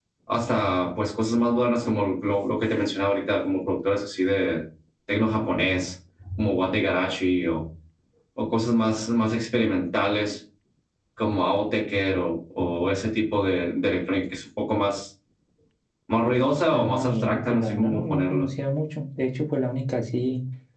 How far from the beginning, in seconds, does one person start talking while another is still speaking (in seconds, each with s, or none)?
16.7 s